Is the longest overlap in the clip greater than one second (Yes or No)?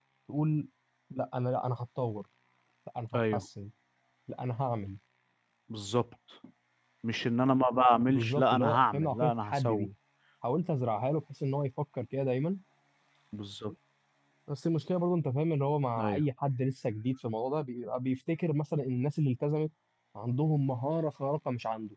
Yes